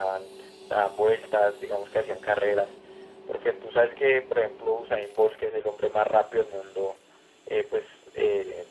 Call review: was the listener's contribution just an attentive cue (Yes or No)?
Yes